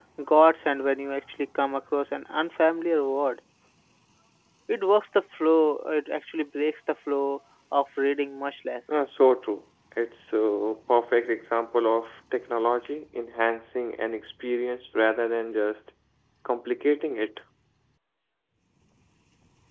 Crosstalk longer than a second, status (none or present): none